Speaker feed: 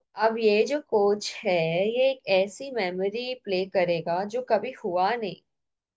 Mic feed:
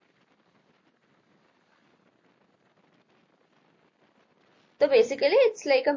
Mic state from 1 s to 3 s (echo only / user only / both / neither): neither